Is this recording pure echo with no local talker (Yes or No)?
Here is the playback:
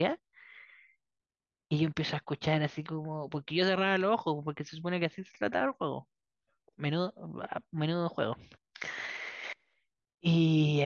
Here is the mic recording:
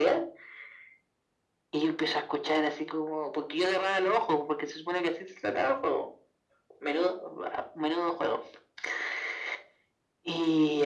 Yes